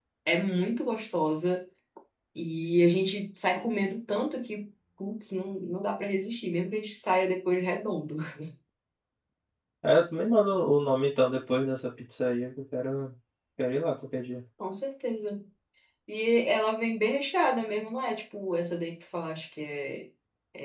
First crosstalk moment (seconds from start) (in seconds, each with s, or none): none